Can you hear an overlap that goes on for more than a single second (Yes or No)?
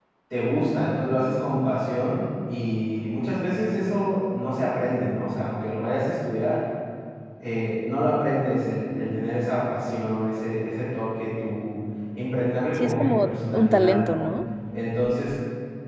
Yes